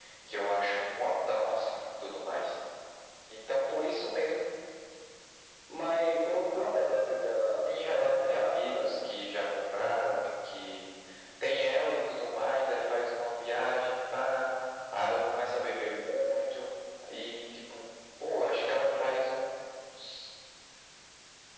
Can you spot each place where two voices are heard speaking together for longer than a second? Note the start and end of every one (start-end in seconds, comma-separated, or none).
7.6-9.0